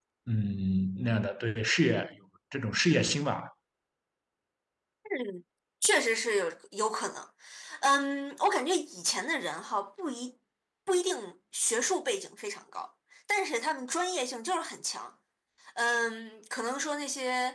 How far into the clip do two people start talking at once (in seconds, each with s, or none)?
none